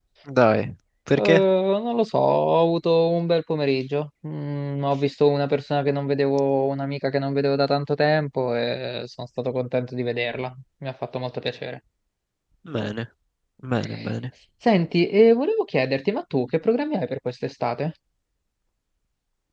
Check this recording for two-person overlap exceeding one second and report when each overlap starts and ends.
none

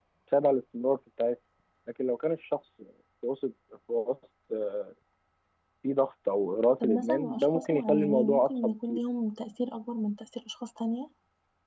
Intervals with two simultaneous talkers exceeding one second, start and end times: 6.8-9.0

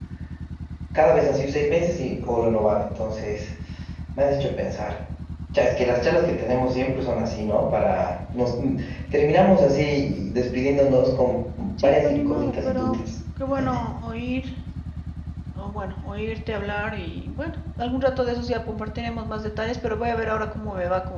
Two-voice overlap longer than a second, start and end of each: 11.8-13.0

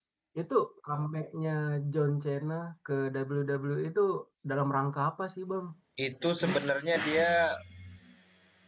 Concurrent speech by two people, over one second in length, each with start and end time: none

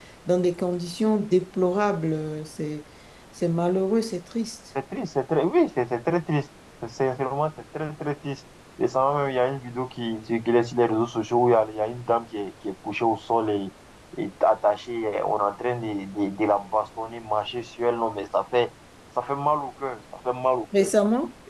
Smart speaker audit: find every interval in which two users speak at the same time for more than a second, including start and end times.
none

